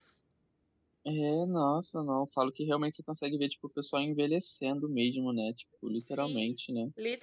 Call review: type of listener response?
taking over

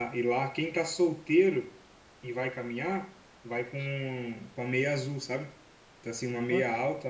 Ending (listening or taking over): listening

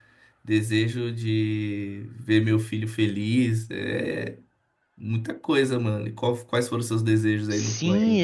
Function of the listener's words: taking over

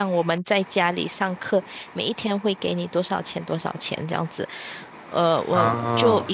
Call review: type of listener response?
listening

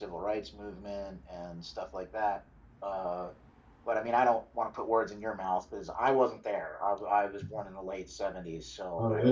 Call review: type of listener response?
taking over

